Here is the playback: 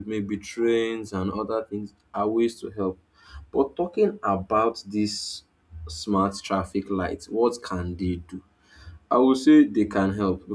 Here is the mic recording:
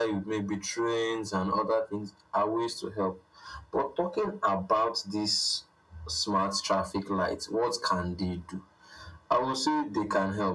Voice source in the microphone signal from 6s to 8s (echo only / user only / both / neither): echo only